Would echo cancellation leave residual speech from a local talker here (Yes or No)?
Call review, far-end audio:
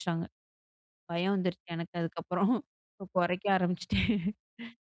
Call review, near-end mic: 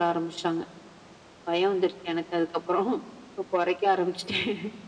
No